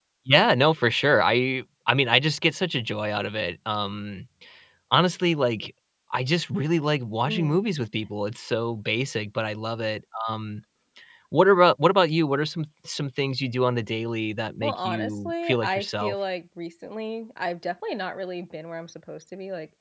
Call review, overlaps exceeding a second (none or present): present